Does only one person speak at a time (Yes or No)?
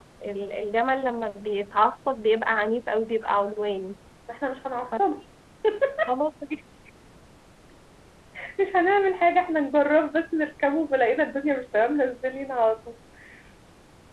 Yes